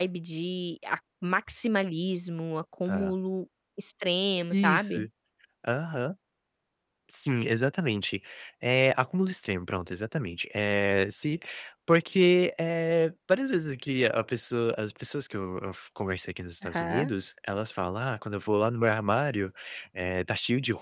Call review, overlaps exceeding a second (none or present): none